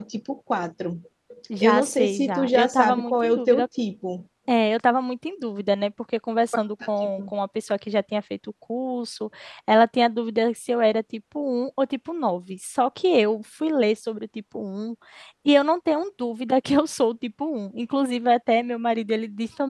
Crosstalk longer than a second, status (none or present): present